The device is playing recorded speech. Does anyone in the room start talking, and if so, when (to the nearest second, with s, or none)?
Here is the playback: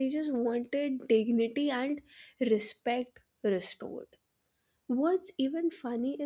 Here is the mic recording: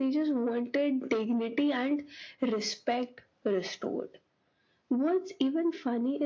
none